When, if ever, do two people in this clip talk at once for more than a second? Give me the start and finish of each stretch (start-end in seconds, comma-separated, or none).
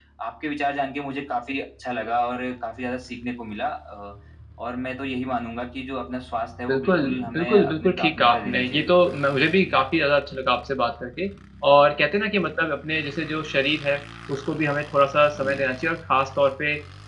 6.7-9.0